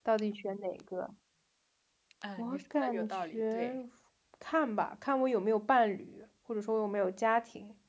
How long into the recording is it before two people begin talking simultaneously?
2.4 s

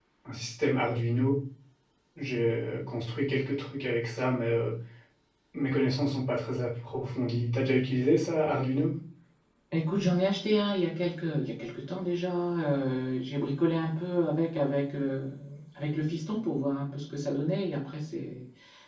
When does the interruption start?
none

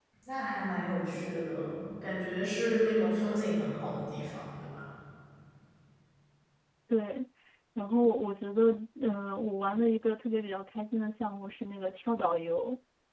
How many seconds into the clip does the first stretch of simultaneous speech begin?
none

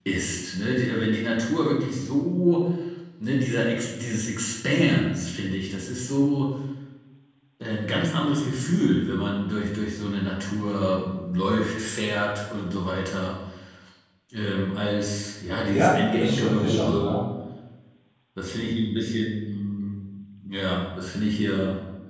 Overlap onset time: 15.7 s

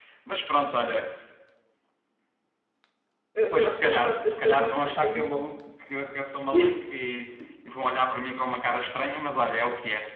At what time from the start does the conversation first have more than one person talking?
3.5 s

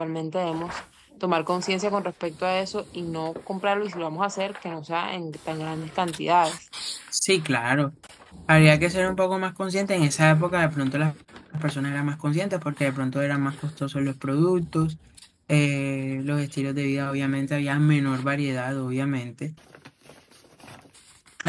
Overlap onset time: none

